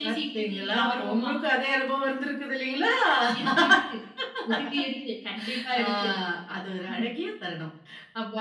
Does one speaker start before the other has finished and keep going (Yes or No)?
Yes